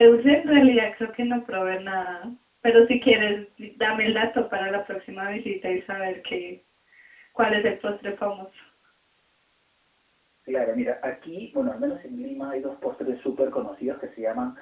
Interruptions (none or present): none